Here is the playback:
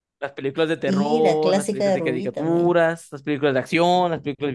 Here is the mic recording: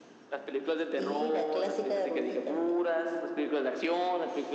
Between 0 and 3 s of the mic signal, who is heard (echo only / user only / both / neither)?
echo only